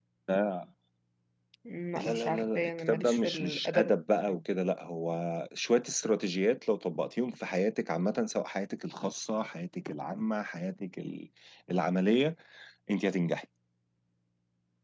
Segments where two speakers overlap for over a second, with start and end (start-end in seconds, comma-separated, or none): 2.0-3.9